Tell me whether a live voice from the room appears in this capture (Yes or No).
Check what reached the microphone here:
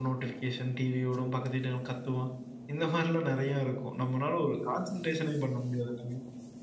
Yes